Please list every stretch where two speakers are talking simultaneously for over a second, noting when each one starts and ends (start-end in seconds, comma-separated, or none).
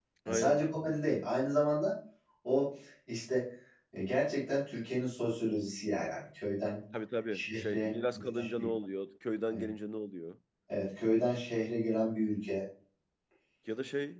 7.3-8.7